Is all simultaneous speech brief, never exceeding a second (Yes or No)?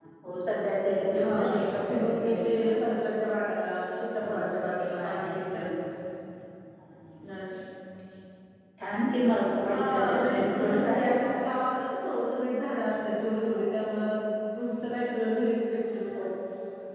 No